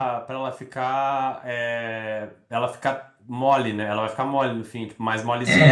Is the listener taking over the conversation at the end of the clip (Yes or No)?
Yes